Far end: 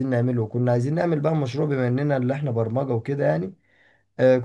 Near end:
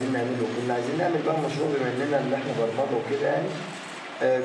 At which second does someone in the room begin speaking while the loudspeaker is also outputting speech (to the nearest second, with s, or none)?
none